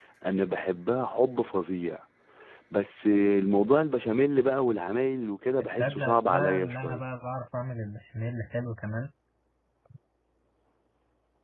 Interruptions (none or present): present